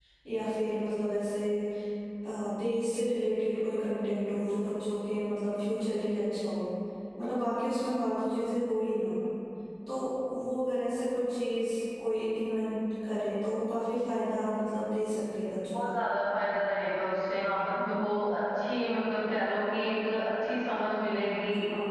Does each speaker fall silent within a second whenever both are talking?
Yes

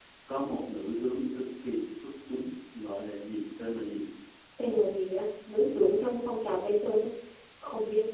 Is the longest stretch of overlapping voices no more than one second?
Yes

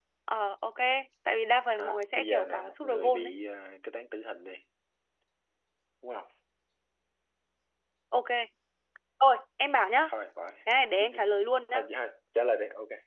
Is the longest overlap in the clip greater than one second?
Yes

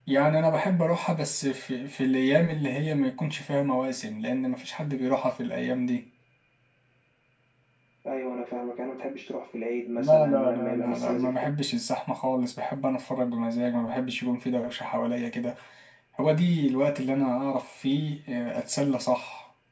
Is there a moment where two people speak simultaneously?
Yes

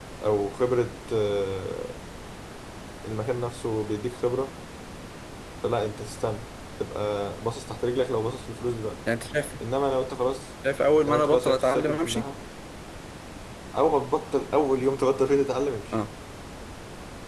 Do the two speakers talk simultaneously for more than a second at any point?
Yes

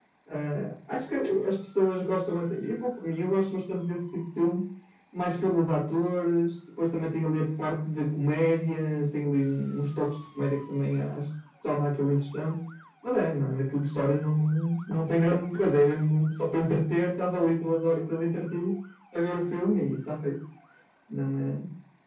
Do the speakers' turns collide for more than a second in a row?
No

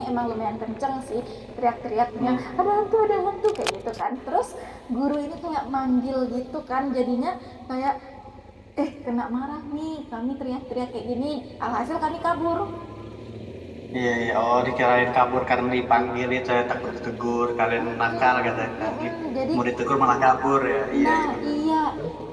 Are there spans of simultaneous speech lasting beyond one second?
Yes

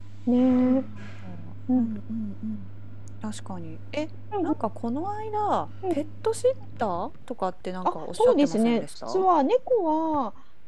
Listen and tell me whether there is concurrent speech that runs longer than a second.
Yes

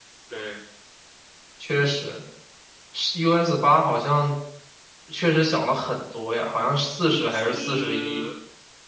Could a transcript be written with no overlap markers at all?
No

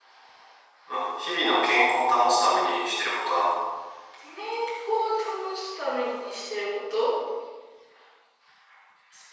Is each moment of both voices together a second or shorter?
Yes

